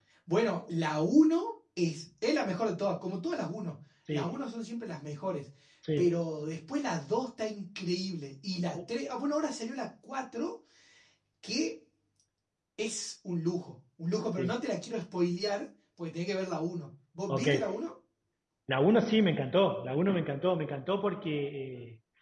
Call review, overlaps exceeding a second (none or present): none